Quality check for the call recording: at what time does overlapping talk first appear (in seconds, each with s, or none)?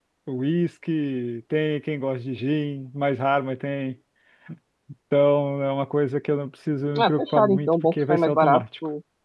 7.0 s